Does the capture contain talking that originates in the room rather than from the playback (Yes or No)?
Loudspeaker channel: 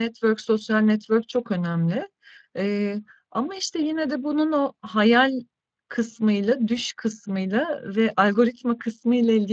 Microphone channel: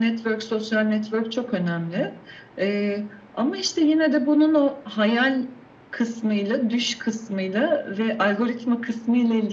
No